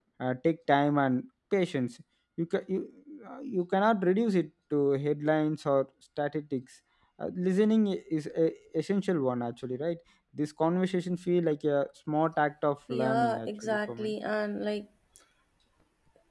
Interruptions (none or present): present